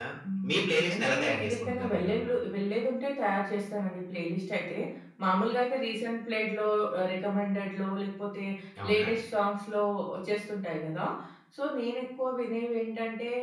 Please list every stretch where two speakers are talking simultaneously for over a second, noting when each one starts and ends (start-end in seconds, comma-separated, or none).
0.5-2.1